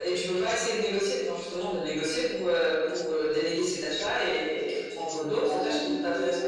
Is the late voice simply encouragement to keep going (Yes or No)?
No